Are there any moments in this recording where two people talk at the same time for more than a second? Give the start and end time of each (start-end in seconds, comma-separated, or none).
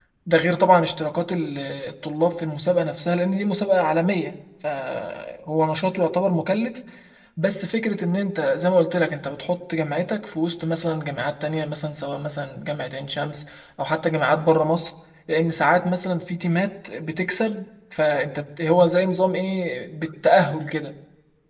none